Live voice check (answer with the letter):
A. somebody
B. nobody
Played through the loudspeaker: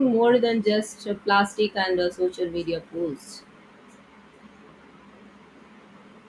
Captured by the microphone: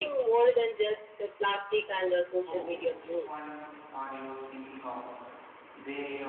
A